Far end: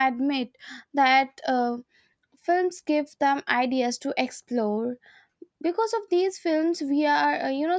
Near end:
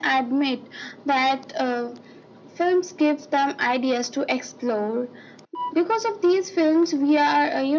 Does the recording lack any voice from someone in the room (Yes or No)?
Yes